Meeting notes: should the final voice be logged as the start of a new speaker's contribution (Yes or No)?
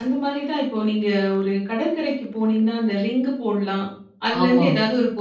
No